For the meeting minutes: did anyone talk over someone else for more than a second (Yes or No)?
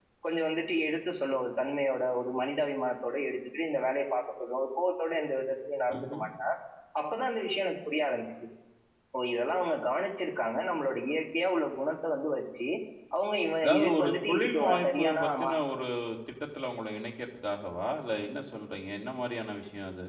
Yes